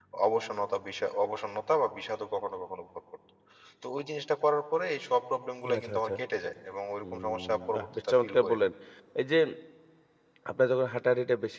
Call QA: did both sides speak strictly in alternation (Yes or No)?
No